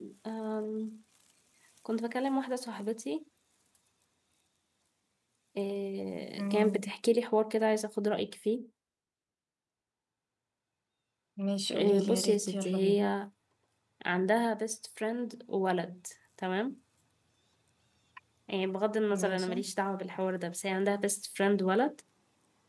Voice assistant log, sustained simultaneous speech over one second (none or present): present